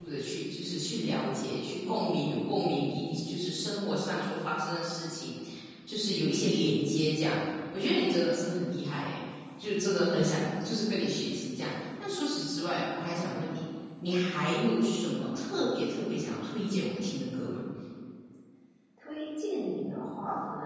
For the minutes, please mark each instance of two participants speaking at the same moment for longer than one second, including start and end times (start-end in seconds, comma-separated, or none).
none